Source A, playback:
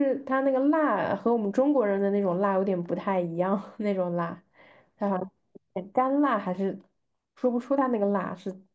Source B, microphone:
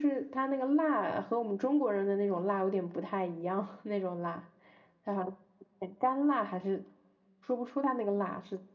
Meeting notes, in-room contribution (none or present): none